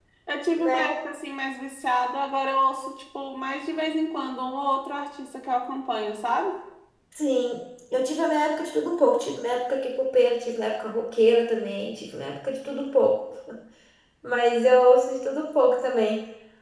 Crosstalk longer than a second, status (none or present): none